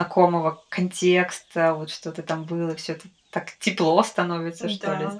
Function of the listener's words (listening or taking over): taking over